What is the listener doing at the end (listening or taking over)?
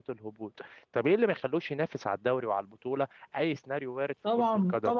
taking over